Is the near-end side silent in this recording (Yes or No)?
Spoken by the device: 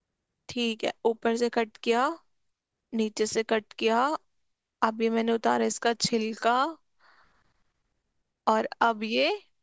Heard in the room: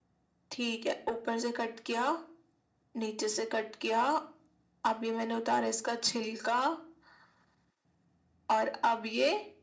Yes